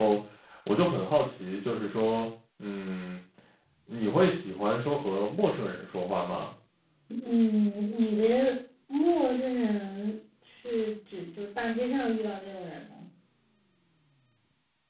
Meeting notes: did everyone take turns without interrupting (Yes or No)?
Yes